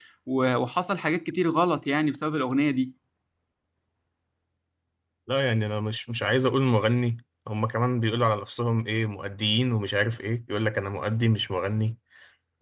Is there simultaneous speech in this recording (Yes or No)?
No